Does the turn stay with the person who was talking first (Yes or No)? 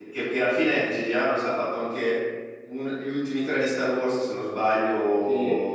No